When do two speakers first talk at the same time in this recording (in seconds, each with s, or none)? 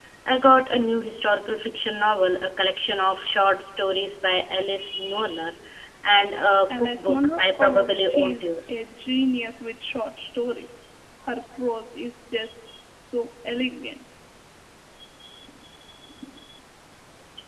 6.7 s